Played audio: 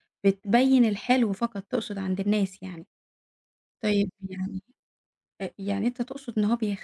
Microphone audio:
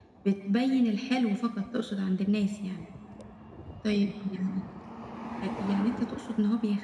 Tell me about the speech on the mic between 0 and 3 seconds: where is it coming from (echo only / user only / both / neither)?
echo only